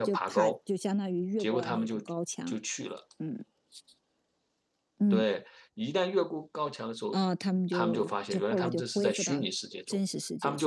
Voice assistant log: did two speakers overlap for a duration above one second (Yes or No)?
Yes